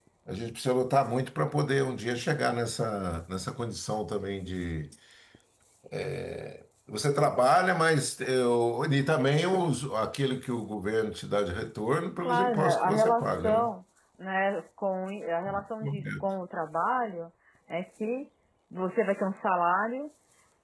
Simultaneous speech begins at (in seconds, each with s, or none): 12.2 s